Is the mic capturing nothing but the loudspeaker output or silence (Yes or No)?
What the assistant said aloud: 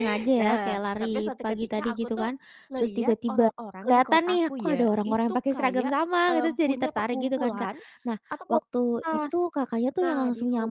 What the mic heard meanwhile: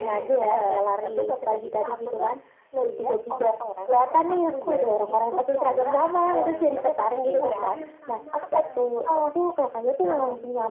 No